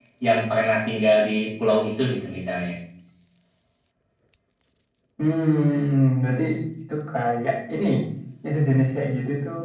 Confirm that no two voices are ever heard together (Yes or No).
Yes